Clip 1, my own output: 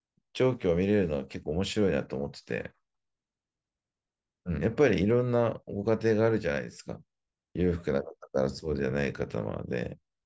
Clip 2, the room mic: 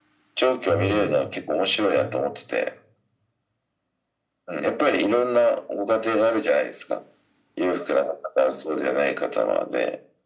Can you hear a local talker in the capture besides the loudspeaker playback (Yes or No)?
Yes